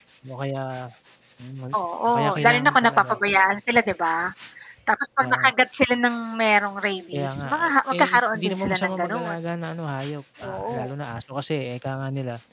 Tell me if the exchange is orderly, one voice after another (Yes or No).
No